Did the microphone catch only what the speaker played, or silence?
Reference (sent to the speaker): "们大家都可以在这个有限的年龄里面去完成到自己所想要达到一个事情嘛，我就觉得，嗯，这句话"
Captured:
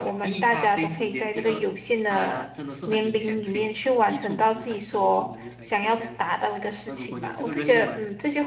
No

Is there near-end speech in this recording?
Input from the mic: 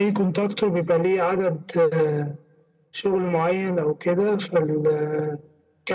No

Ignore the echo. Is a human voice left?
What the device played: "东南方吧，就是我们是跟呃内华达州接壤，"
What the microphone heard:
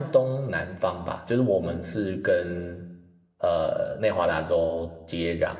No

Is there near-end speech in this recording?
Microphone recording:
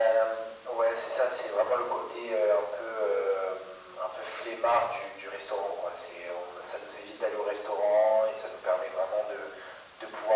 No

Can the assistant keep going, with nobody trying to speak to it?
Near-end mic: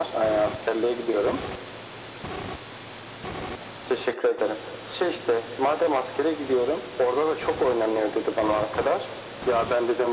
Yes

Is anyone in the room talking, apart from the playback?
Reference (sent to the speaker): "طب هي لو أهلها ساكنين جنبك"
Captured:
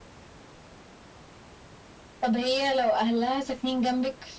No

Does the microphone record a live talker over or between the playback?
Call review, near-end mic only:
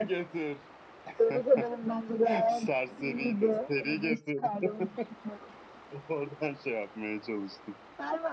Yes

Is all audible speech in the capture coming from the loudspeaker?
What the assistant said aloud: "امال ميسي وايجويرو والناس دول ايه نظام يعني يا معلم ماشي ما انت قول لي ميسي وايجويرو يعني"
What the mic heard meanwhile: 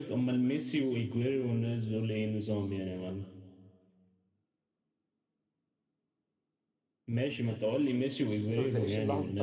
No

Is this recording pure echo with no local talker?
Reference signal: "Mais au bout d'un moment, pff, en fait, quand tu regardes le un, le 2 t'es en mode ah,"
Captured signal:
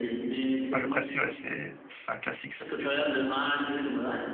No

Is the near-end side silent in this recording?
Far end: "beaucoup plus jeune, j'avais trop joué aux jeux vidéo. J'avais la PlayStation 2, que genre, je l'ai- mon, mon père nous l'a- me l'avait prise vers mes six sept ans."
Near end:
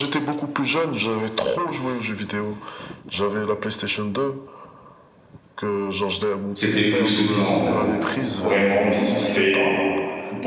No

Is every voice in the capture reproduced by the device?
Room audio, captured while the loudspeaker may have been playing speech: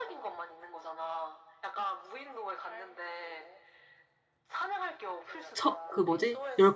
No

